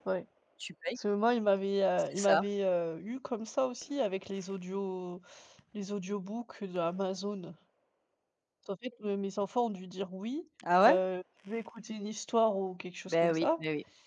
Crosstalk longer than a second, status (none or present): none